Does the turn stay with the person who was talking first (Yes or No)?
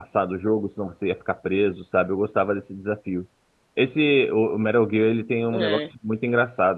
Yes